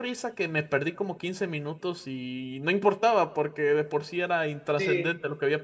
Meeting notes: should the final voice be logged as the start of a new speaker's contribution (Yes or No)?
Yes